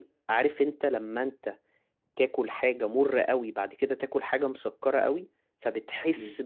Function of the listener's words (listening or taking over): listening